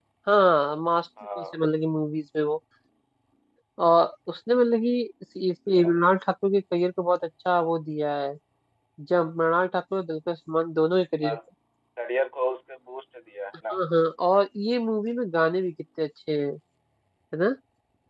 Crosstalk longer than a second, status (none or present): none